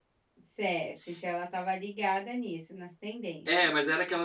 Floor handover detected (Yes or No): Yes